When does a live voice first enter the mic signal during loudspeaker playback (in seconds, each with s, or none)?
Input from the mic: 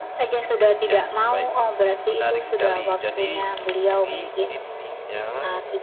none